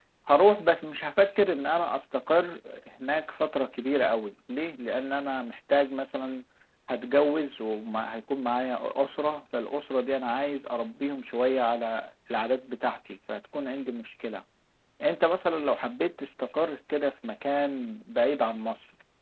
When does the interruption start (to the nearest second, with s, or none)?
none